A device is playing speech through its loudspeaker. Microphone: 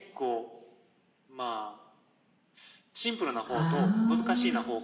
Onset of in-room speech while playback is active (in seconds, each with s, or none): 3.4 s